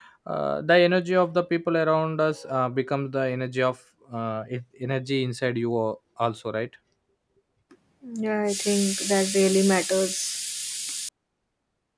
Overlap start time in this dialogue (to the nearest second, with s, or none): none